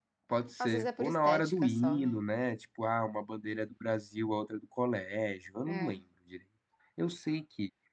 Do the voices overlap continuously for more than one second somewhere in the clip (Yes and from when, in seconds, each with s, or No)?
Yes, from 0.6 s